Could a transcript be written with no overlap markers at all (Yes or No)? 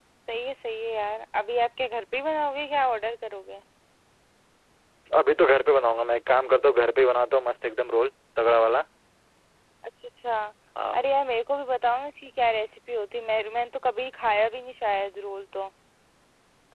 Yes